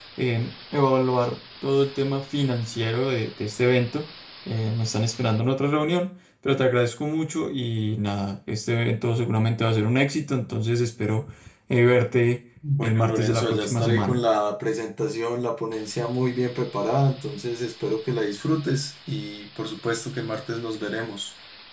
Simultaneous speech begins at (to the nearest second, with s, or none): 13 s